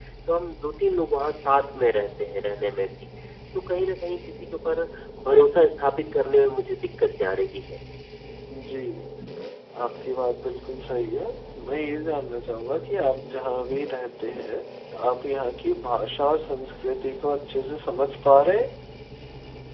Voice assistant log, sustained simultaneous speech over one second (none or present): none